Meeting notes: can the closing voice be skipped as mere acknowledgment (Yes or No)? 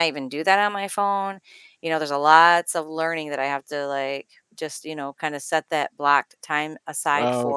No